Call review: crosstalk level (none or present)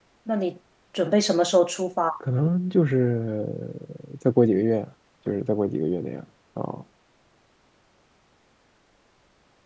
none